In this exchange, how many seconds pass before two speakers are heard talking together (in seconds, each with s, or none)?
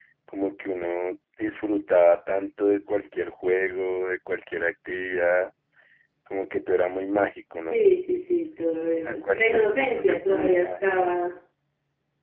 9.1 s